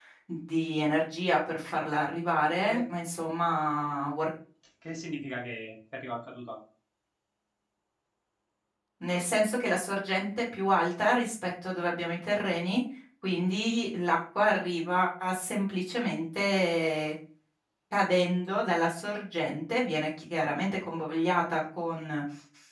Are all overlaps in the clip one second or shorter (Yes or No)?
Yes